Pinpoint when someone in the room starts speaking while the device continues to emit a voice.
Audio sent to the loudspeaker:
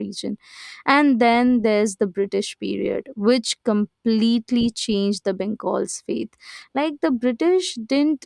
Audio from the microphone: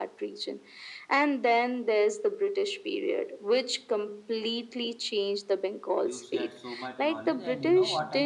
6.0 s

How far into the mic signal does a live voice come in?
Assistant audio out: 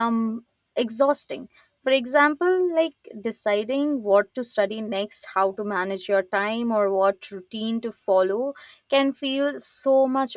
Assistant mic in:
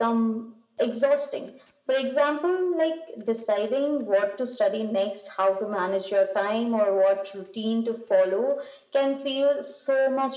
none

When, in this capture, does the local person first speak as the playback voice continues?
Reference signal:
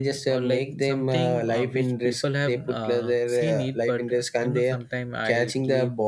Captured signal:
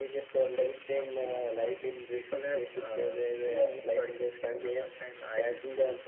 none

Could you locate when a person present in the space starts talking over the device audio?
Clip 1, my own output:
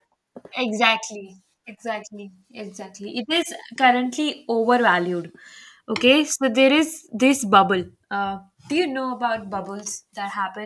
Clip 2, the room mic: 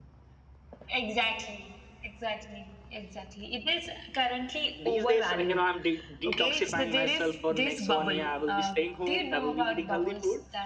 4.7 s

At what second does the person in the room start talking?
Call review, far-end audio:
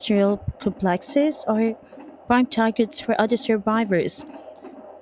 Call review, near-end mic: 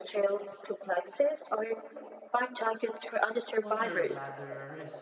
3.5 s

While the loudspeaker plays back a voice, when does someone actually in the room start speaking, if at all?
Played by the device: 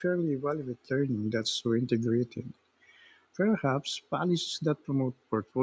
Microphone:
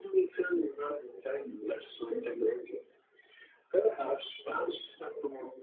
none

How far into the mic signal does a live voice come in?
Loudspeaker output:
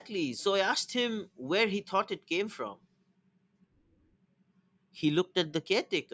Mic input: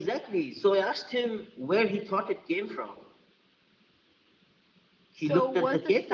5.1 s

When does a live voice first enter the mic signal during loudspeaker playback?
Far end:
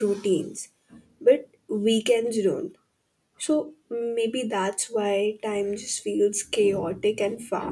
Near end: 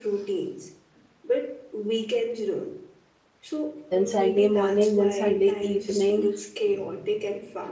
3.9 s

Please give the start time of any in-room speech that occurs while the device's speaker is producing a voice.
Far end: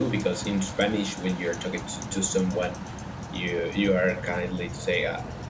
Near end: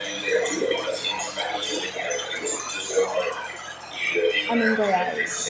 4.5 s

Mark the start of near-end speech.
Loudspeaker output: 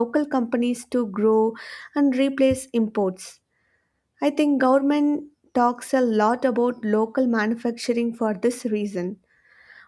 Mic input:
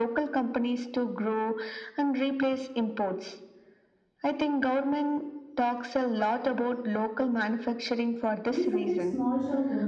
8.5 s

